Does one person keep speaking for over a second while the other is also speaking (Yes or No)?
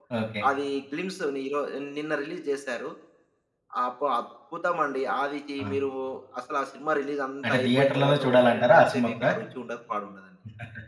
Yes